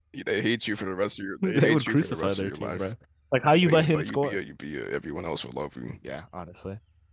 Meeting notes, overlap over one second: present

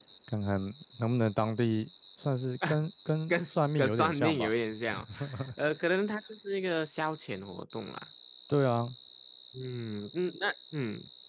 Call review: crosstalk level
present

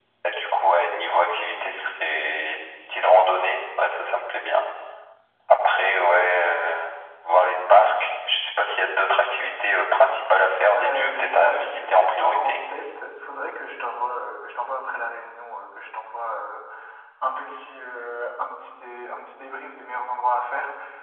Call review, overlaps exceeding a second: present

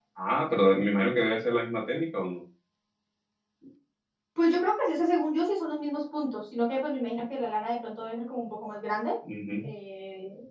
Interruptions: none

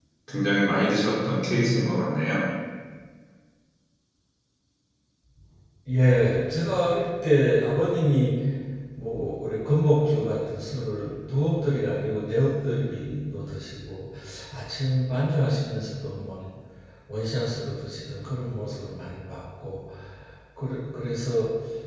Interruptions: none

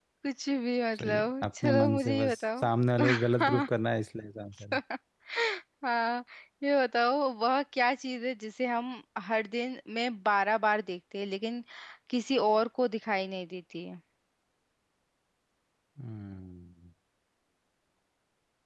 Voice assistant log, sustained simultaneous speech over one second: present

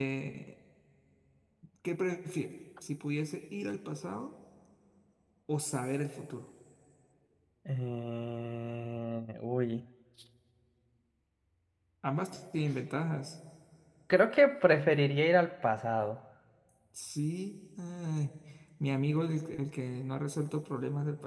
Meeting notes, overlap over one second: none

